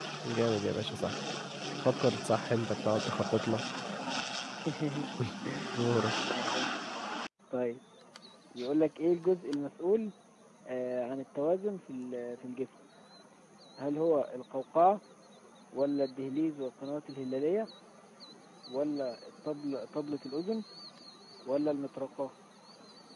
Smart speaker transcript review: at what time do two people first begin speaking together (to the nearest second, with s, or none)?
none